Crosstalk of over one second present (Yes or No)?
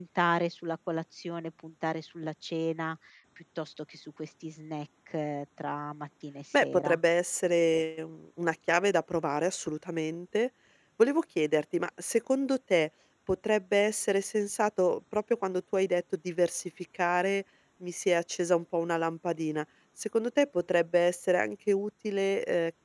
No